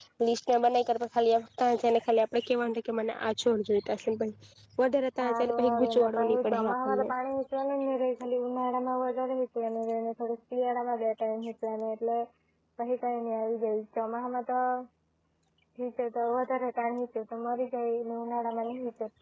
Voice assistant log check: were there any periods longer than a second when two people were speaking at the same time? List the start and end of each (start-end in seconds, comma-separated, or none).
5.2-7.1